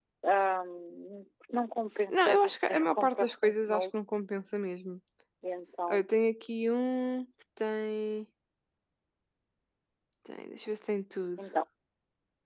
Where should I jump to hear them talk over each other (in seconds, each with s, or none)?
2.1 s